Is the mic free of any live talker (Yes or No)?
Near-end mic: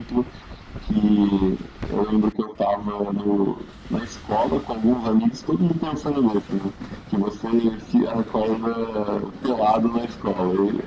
Yes